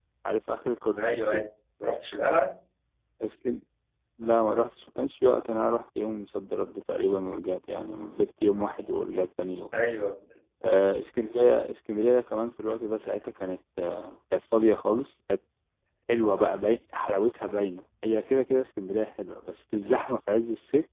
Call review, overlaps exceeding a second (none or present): none